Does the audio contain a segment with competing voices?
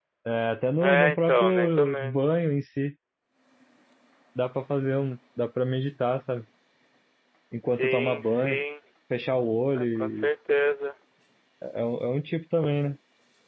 Yes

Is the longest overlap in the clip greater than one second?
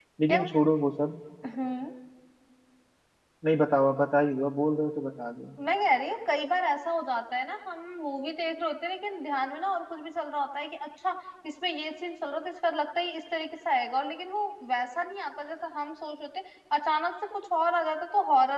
No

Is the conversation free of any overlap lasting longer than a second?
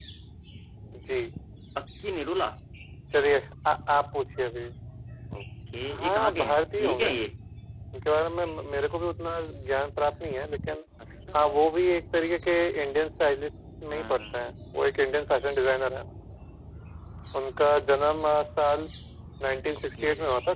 No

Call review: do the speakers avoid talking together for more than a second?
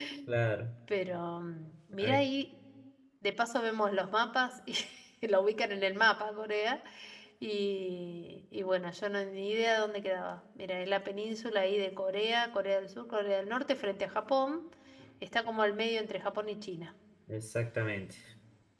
Yes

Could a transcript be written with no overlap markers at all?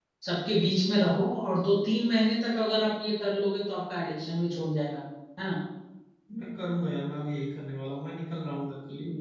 Yes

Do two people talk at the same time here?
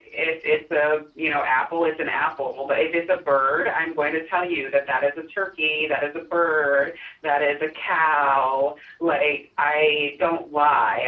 No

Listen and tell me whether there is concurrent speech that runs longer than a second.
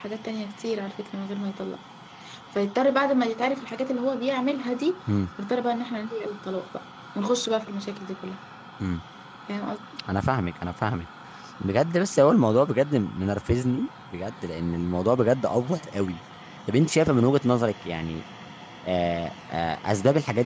No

